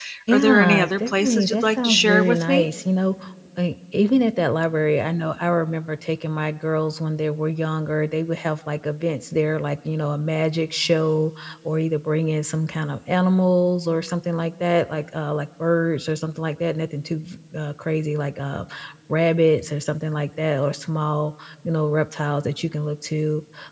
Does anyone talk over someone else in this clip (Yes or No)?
Yes